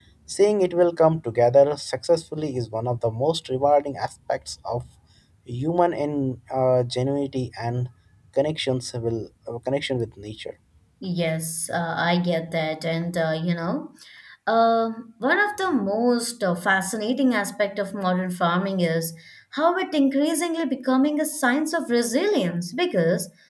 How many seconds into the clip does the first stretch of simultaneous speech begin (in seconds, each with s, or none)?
none